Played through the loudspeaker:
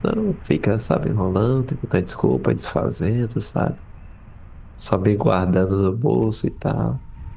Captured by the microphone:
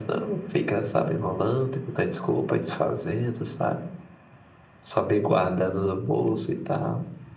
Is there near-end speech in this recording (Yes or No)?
No